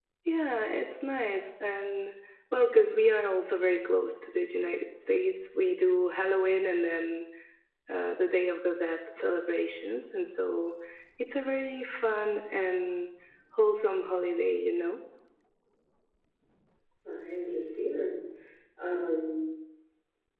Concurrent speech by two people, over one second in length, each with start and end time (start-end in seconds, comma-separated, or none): none